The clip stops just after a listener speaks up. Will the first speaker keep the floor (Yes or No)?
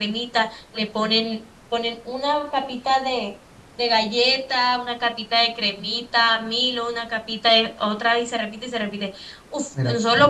Yes